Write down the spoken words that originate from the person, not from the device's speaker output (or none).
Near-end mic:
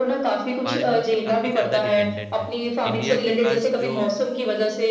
फार्मिंग पे काफ़ी ज़्यादा डिपेंडेंट है। इंडिया के पास जो